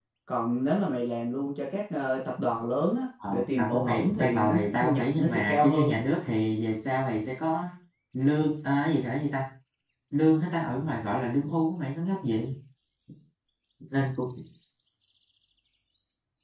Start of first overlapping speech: 3.2 s

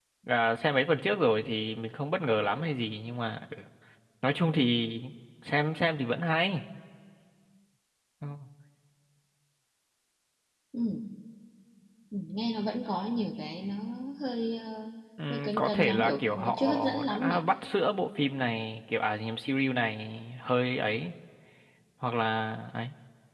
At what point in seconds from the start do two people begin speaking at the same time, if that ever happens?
15.3 s

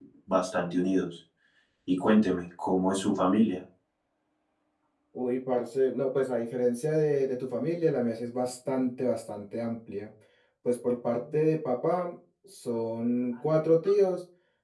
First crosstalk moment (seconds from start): none

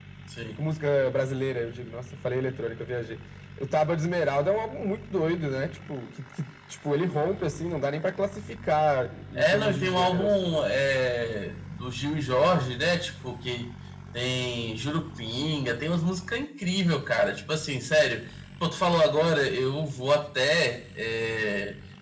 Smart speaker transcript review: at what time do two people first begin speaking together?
9.3 s

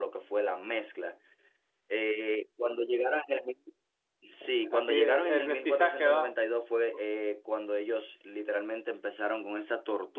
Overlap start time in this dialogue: 4.7 s

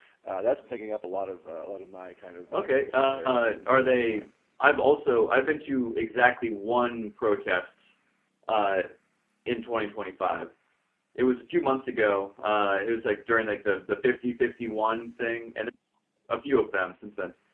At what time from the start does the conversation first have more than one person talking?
2.5 s

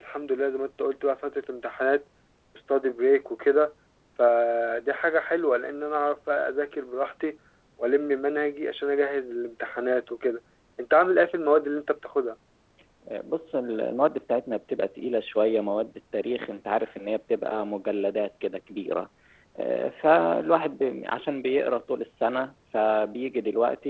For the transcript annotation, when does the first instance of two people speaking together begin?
none

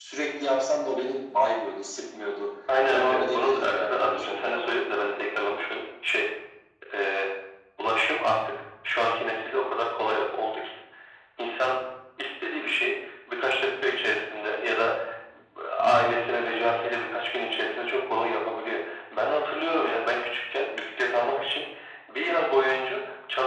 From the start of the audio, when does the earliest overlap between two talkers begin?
2.7 s

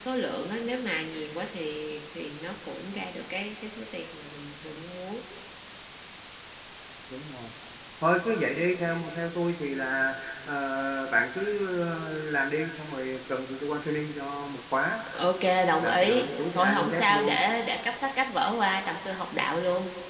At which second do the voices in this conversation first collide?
15.8 s

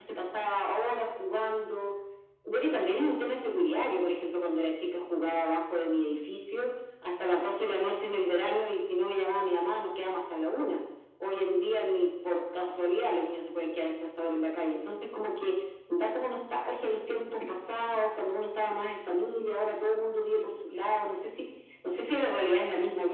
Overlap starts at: none

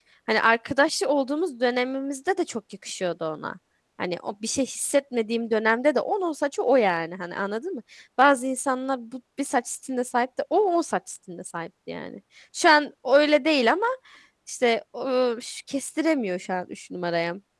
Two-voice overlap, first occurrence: none

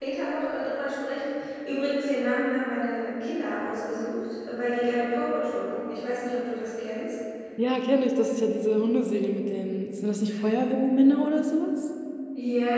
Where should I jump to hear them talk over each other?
none

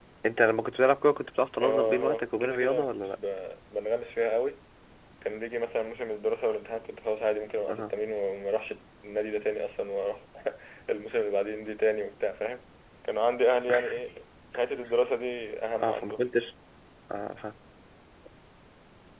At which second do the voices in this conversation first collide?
1.6 s

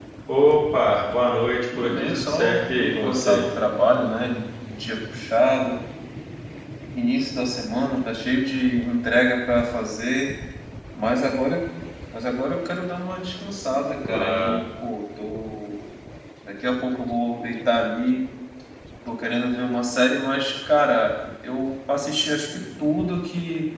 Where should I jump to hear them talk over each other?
1.8 s

